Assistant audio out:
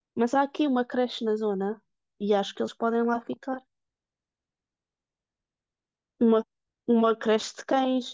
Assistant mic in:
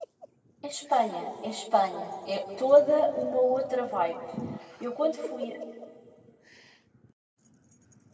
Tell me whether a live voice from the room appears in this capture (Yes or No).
Yes